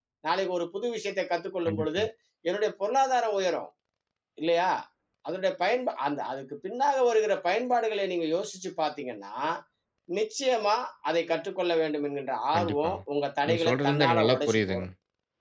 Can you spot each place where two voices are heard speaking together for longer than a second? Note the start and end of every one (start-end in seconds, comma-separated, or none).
13.4-14.8